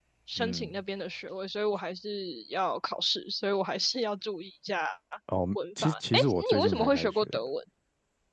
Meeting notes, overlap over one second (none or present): present